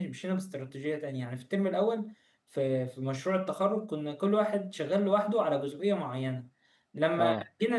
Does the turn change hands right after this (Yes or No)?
No